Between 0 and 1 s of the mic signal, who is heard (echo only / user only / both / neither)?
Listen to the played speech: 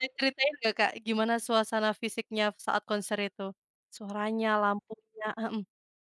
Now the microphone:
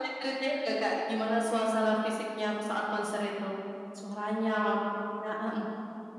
echo only